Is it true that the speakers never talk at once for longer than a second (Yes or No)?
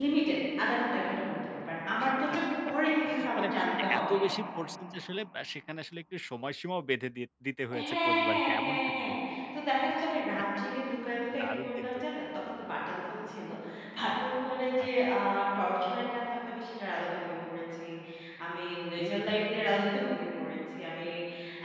No